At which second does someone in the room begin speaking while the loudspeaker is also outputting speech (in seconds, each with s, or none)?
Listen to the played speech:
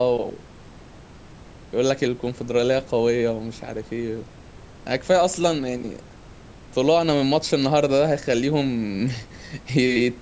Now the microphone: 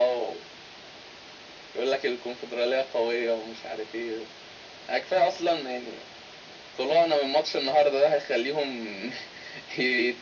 none